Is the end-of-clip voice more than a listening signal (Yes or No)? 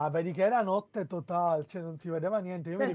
Yes